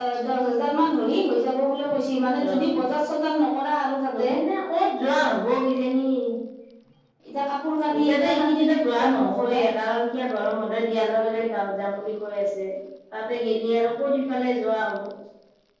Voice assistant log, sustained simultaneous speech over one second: present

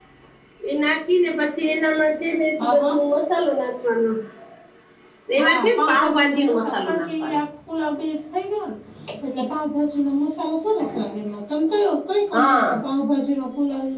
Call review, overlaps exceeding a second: present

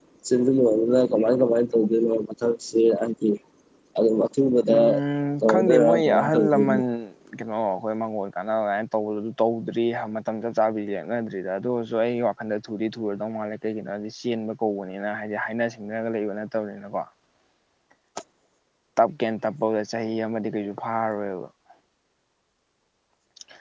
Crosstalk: present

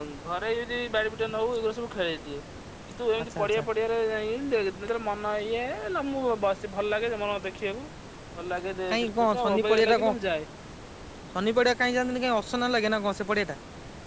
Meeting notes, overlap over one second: present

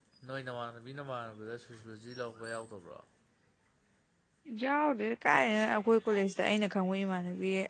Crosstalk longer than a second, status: none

